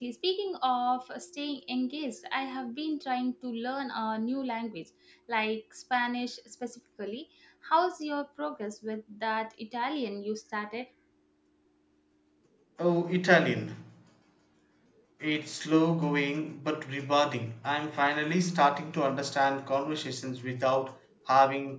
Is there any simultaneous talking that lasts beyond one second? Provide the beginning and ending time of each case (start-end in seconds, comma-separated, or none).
none